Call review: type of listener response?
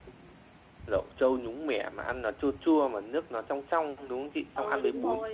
taking over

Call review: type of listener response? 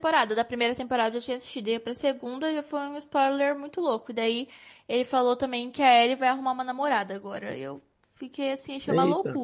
taking over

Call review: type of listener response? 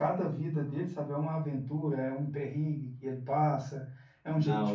listening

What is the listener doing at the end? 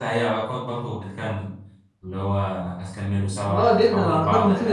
taking over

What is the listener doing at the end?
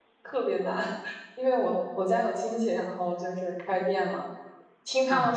listening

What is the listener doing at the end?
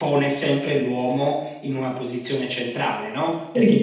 listening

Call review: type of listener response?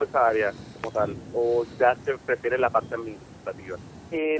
taking over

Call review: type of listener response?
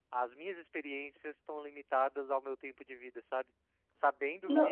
listening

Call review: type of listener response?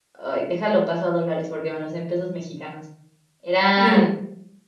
listening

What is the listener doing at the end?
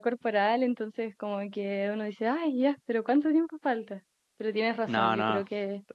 listening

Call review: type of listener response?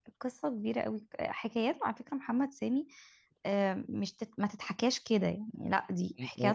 taking over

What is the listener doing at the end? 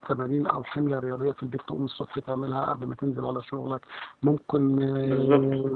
listening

